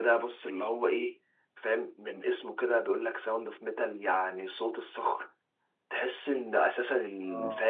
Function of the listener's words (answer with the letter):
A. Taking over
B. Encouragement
B